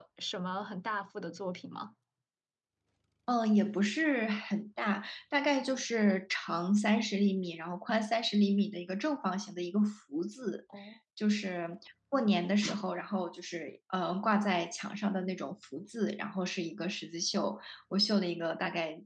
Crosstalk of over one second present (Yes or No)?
No